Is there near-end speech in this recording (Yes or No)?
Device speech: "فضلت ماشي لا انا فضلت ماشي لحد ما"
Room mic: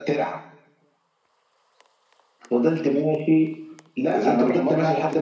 Yes